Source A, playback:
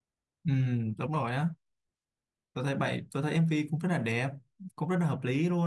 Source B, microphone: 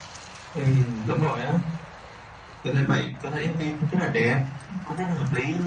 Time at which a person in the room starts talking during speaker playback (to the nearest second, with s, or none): none